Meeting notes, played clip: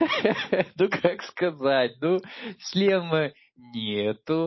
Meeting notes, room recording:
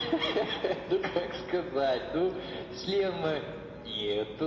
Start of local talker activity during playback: none

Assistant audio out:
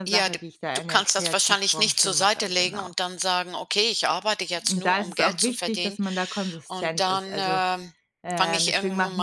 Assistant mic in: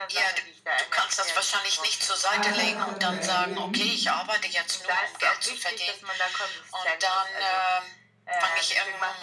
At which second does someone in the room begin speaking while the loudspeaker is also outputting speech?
2.3 s

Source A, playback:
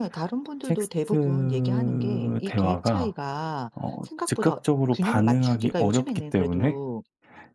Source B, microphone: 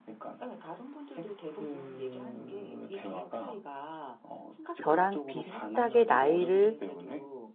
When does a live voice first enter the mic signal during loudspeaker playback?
4.8 s

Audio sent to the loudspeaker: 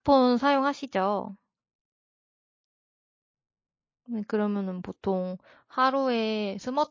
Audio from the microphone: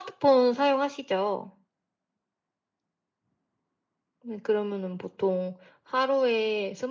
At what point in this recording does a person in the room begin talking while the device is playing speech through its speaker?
none

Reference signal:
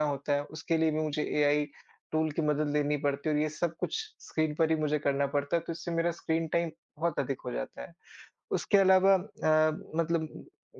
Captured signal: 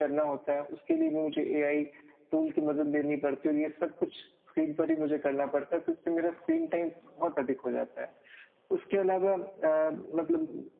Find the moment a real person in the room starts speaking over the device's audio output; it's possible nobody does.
none

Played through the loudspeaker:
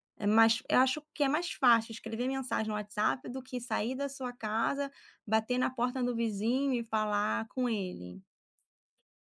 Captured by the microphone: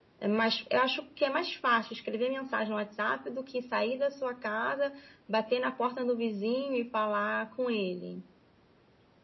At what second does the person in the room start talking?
none

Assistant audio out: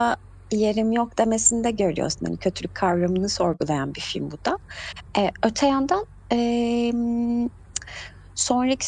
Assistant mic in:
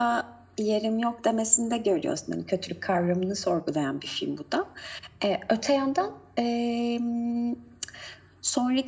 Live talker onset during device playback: none

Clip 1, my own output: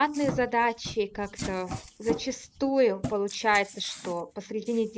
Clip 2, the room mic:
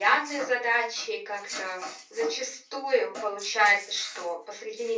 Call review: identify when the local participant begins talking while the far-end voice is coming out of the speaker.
none

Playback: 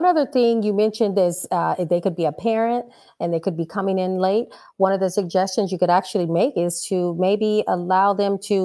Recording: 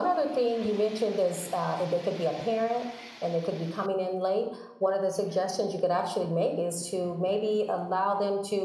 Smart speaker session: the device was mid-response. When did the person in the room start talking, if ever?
none

